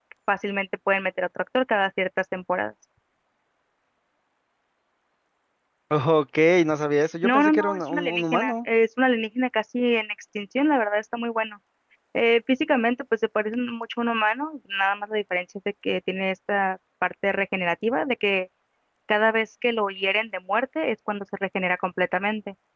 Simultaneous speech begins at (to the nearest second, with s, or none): 7 s